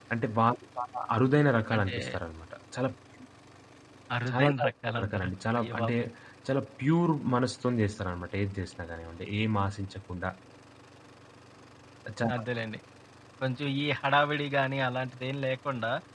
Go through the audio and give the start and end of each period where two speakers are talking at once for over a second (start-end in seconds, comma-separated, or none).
4.3-6.0